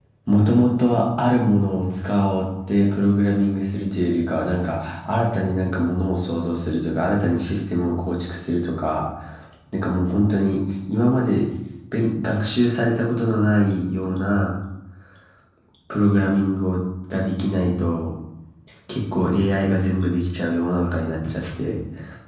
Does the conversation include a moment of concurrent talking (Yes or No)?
No